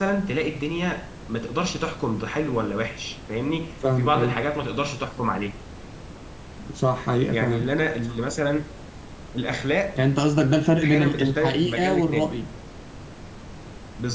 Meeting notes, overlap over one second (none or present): present